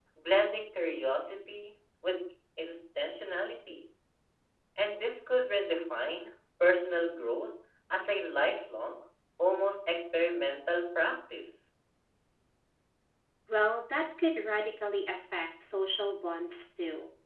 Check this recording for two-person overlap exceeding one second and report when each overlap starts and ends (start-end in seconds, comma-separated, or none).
none